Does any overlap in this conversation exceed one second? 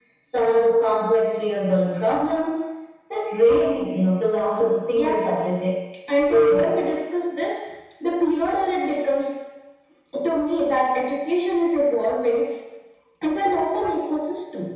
No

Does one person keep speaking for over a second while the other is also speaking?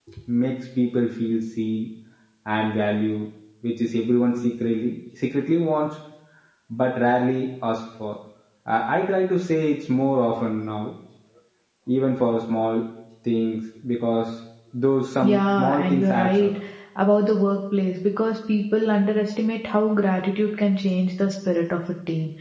Yes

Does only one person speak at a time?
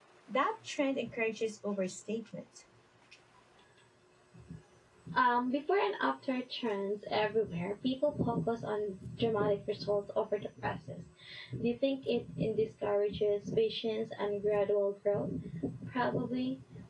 Yes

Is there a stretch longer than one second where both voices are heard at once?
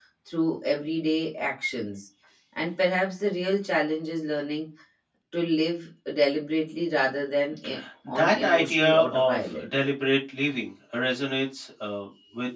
Yes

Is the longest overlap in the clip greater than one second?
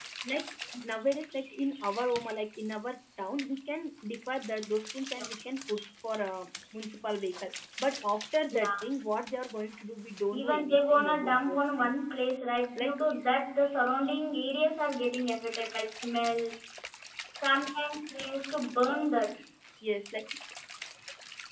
Yes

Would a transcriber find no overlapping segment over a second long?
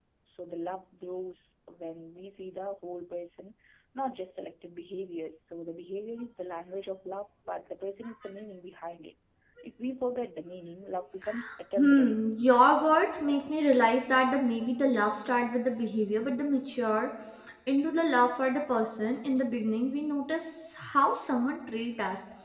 Yes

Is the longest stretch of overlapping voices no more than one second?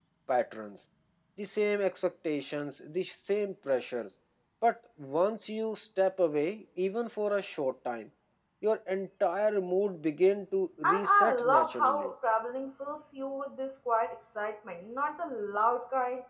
No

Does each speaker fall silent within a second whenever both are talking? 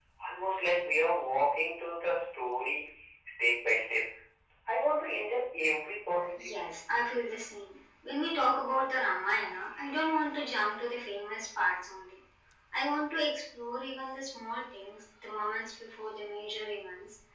Yes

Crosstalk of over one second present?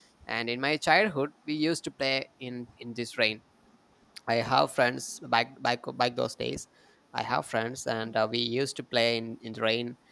No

